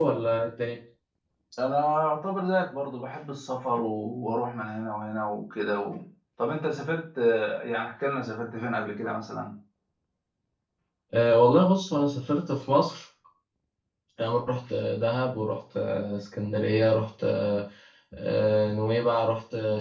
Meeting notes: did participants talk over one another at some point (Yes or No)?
No